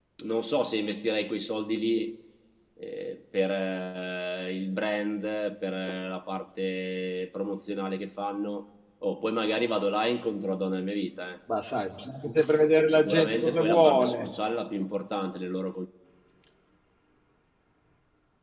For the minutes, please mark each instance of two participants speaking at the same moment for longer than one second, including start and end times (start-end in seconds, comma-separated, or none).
12.9-14.3